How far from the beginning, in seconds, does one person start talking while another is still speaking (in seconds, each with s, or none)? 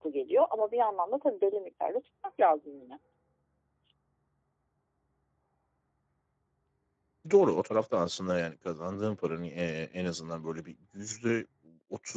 none